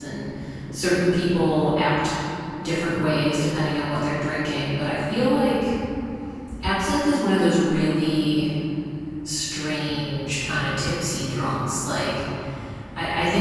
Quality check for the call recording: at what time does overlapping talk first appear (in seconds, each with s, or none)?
none